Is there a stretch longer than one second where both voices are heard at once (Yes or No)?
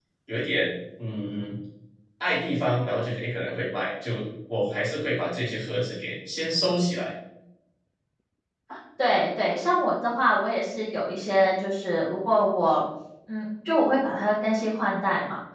No